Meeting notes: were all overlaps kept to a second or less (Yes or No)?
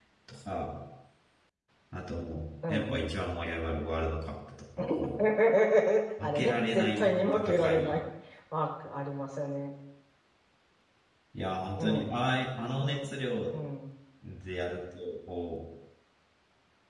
No